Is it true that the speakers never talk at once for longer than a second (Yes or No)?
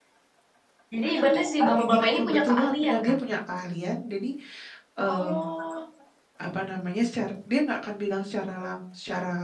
No